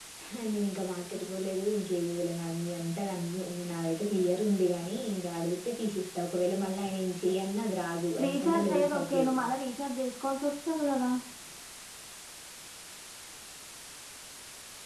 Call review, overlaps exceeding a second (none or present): present